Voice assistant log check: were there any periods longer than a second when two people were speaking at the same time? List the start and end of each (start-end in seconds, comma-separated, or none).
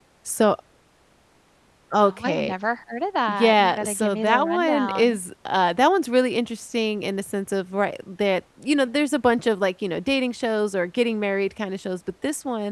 3.3-5.2